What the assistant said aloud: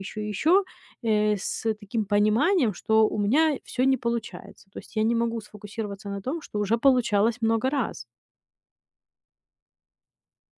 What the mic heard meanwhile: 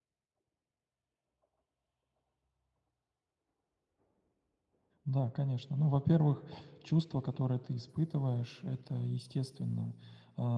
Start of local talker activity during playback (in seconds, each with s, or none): 5.0 s